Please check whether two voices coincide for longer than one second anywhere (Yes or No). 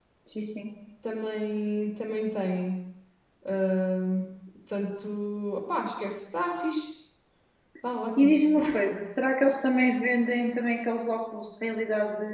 No